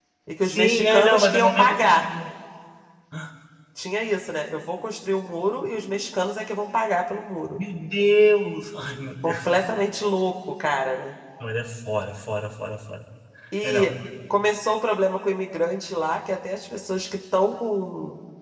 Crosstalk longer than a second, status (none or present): present